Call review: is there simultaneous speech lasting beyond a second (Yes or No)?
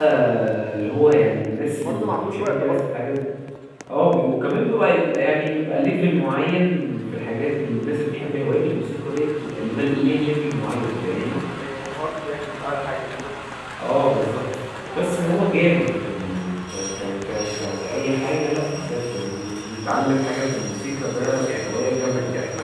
Yes